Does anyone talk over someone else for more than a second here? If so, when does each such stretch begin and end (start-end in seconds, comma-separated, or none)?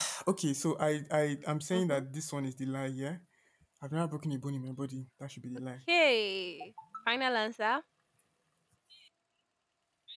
none